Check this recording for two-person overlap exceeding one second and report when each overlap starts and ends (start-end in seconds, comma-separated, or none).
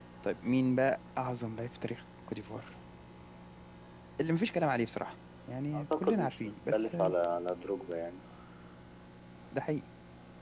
5.8-7.1